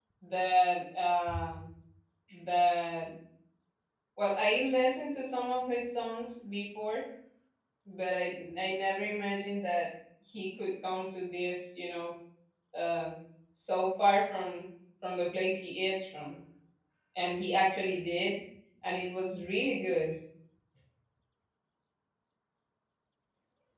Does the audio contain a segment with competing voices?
No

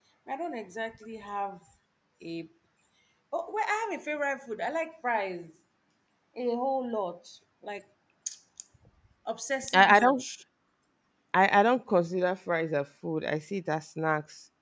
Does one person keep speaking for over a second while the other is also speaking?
No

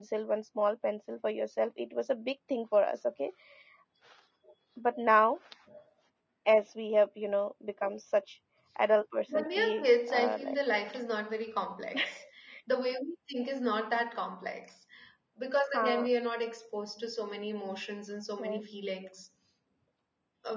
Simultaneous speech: Yes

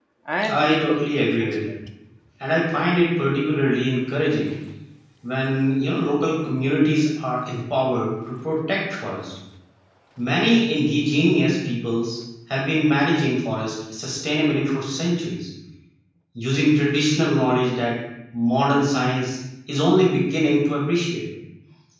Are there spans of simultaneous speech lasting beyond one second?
Yes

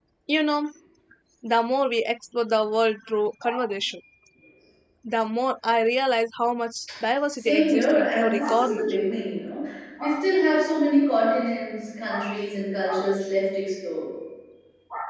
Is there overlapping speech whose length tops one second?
Yes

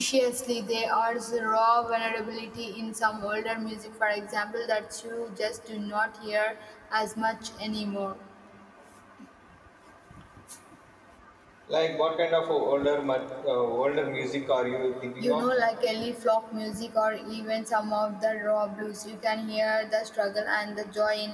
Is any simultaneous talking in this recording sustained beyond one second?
No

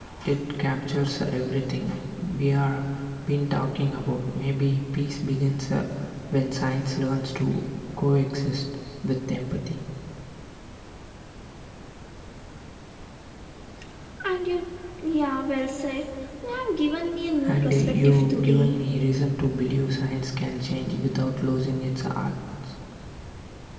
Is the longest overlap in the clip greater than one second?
Yes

